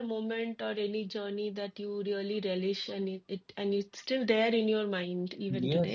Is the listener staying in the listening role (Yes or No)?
No